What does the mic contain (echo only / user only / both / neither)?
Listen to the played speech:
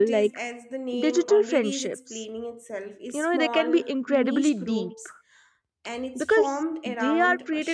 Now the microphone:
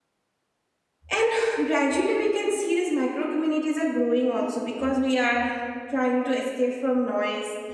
user only